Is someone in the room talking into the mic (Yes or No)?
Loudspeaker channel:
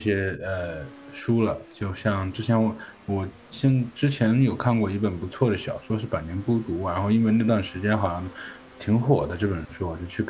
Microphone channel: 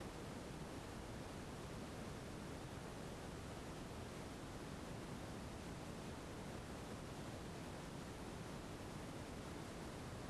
No